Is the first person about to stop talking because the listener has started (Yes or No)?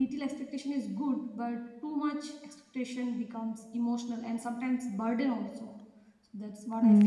Yes